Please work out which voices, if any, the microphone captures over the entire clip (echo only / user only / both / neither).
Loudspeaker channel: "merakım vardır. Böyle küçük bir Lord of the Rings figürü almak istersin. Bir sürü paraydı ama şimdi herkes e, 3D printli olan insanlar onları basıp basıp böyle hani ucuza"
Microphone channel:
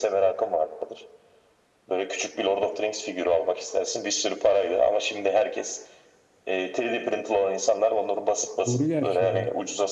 both